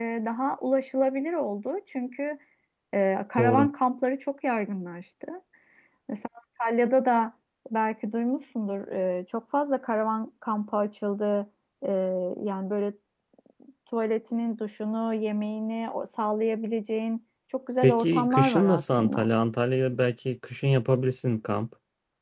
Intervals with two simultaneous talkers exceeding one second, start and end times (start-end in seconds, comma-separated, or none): 17.8-19.3